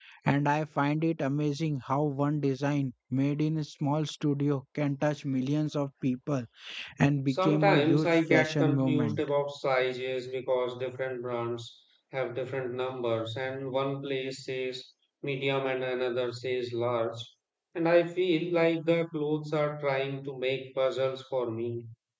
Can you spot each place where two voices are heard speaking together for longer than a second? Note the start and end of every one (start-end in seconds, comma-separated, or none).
7.3-9.2